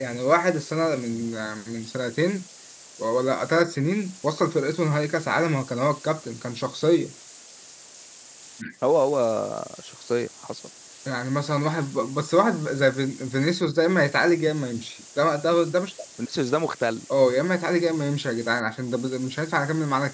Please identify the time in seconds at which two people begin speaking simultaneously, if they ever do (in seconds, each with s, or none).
none